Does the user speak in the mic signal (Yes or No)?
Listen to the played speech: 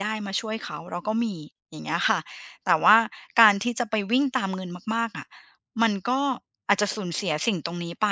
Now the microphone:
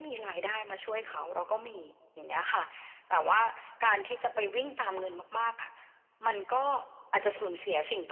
No